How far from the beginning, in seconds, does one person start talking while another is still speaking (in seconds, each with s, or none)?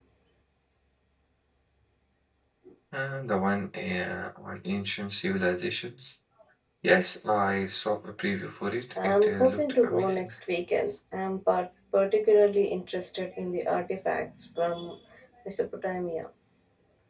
8.9 s